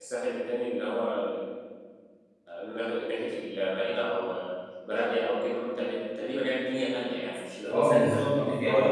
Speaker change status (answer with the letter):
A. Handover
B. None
A